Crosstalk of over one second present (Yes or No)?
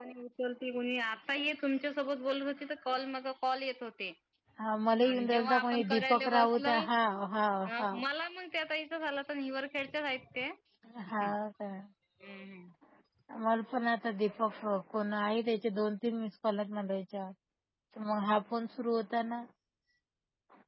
Yes